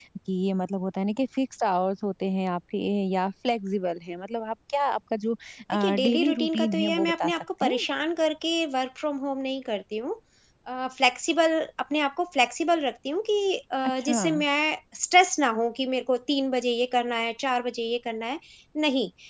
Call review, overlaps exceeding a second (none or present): present